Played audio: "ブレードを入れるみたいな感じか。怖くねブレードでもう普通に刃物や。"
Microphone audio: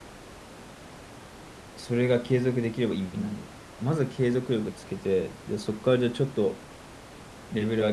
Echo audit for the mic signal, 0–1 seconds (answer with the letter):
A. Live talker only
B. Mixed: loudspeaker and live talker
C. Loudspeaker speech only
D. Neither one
D